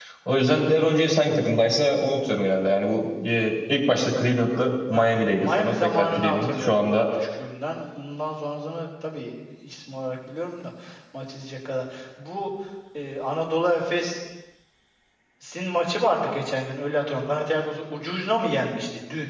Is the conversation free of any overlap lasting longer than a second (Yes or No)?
No